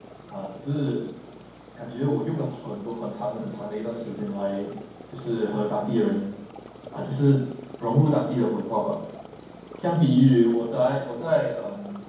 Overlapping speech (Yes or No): No